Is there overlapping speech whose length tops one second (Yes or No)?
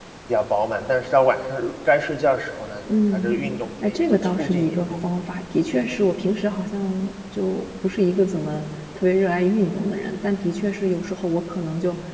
Yes